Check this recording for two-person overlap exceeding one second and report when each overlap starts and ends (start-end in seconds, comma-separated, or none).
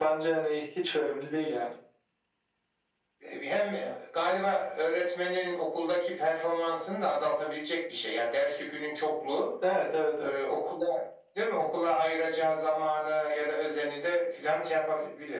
none